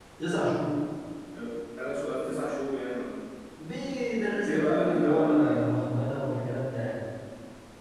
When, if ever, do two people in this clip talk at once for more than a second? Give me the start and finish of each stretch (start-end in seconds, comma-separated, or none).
4.4-5.6